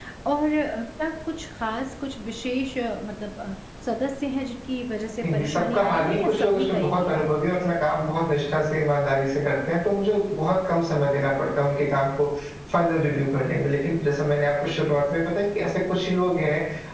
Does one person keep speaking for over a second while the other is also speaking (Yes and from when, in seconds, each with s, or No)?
Yes, from 5.2 s